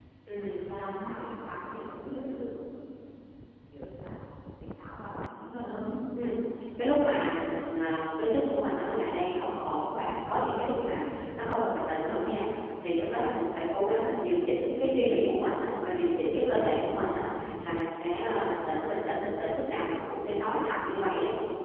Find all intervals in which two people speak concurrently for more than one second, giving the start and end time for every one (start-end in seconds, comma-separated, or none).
none